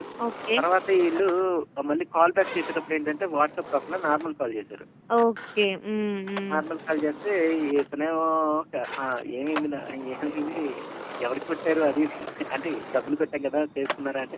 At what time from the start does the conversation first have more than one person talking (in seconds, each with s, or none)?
none